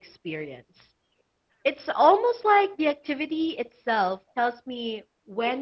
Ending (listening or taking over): taking over